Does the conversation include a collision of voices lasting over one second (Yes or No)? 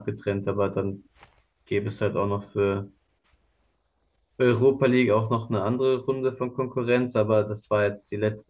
No